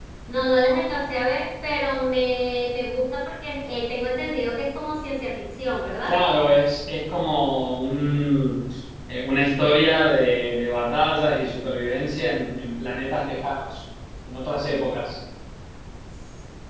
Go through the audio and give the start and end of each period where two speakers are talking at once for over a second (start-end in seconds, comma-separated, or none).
none